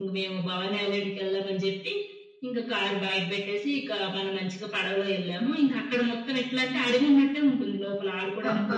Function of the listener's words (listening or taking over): taking over